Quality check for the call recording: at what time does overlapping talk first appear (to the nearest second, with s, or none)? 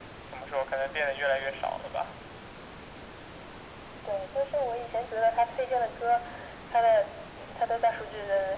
none